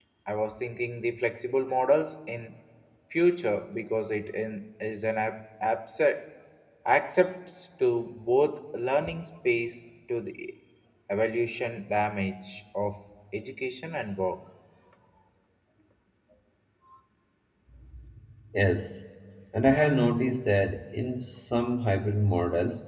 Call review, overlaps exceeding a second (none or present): none